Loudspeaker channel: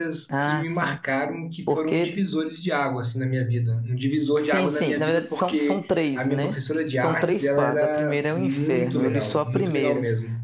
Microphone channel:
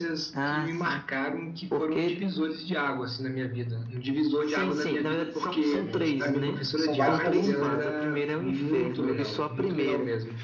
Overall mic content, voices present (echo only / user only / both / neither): both